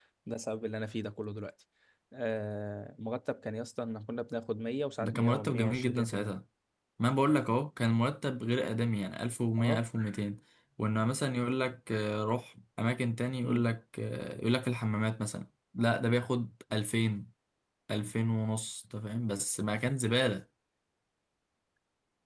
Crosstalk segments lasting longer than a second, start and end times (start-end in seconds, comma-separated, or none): 5.0-6.3